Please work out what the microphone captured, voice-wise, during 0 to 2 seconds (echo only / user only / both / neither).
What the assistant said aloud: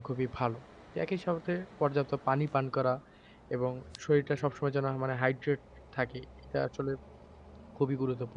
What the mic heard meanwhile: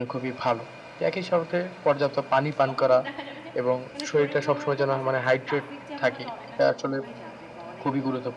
echo only